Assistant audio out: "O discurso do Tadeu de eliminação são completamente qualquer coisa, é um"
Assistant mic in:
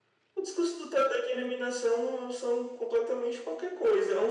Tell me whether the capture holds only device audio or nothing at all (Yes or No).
Yes